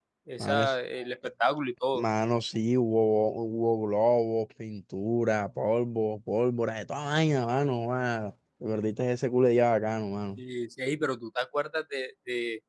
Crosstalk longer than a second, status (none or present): none